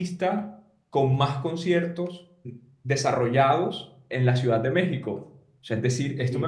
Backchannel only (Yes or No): Yes